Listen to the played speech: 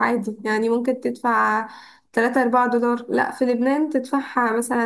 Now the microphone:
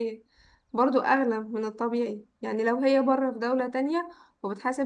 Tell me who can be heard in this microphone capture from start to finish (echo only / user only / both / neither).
user only